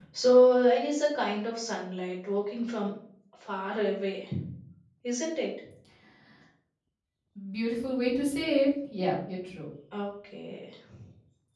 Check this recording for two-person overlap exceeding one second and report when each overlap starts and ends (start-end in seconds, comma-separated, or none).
none